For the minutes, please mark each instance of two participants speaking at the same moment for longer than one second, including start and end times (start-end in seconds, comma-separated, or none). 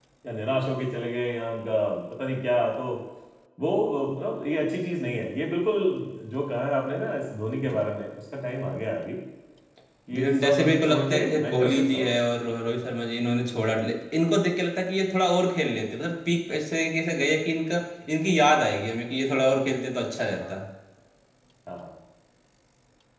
10.1-12.1